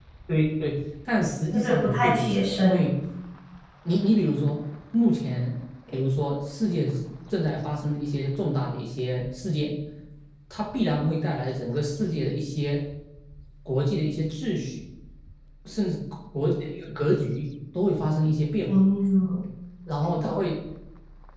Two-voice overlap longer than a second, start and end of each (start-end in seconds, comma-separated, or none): 1.5-2.9